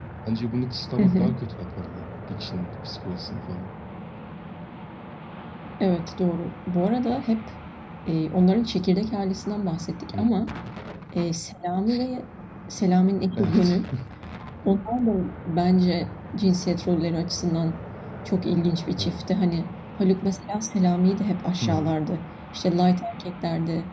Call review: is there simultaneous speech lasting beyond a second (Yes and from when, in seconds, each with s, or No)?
No